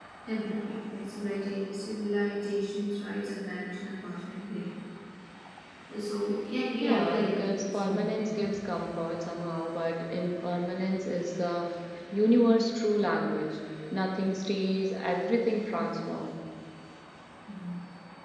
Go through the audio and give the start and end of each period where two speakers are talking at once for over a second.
6.8-8.3

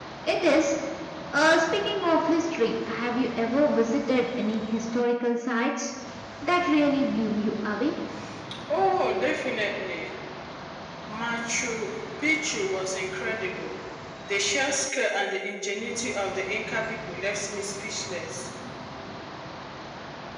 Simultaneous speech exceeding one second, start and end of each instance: none

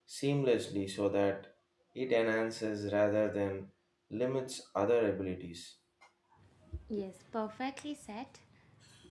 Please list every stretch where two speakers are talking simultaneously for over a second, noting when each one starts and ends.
none

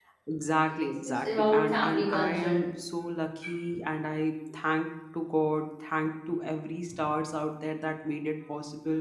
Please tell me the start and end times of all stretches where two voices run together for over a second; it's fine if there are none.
0.7-2.7

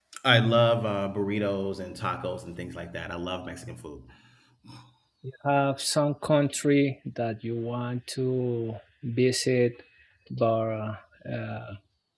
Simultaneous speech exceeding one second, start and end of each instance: none

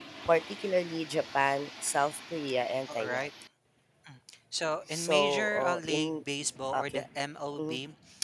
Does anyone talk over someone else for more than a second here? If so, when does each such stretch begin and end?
4.9-6.1

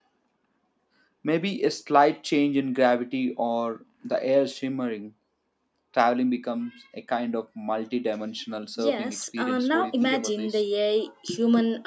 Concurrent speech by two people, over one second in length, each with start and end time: 8.8-10.6

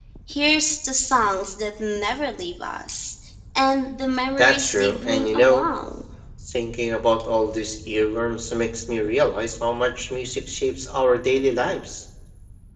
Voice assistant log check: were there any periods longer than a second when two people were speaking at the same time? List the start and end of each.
4.4-5.7

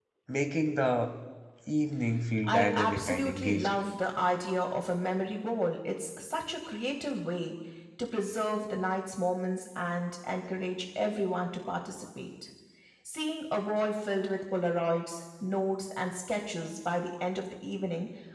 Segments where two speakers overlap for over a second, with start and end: 2.4-3.8

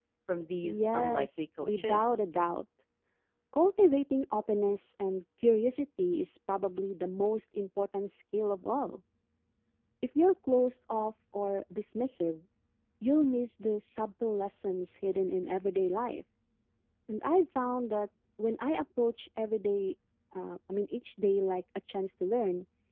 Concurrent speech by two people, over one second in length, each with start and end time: 0.6-2.2

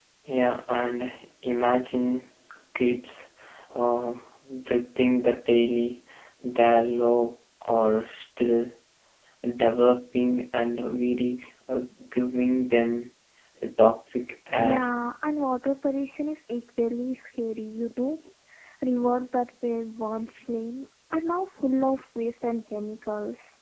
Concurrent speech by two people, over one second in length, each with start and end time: none

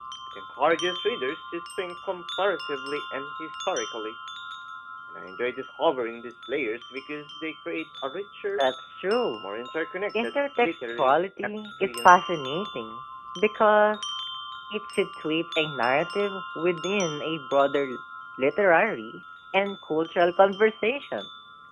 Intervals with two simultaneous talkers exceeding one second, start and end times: 10.2-12.5

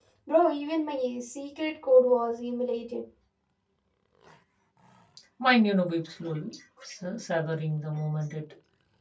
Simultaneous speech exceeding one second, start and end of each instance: none

